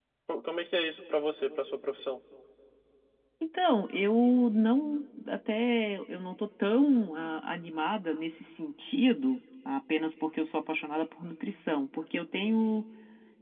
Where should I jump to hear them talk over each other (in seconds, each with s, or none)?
none